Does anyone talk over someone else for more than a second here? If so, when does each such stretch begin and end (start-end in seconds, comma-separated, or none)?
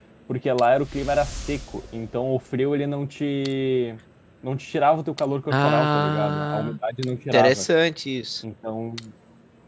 5.5-6.8